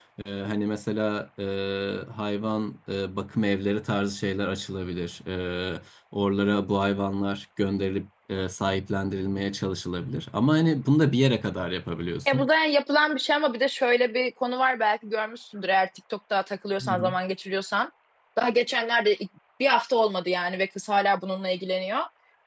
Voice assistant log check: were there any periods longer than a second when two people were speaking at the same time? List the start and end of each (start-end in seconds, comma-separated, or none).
none